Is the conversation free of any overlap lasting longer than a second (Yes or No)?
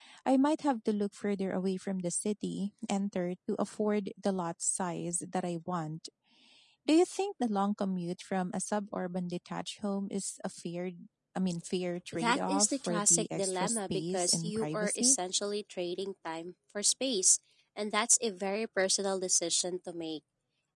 No